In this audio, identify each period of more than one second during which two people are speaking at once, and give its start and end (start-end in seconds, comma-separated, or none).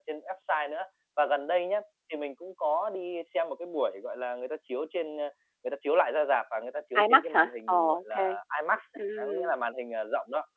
7.0-8.4